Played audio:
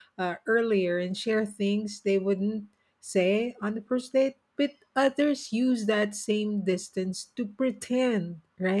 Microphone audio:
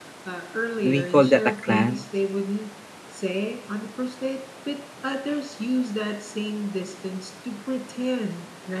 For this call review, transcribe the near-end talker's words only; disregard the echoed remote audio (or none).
we call that a clan